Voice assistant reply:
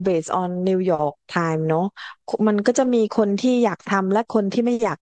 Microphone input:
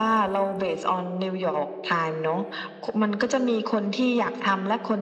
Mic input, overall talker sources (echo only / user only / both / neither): echo only